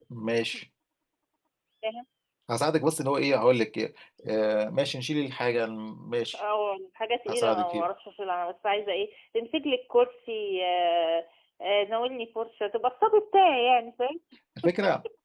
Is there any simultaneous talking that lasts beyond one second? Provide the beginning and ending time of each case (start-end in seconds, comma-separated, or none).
none